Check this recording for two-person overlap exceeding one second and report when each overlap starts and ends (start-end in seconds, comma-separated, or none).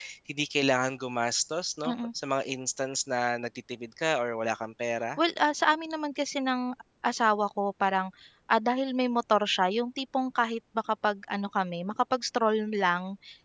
none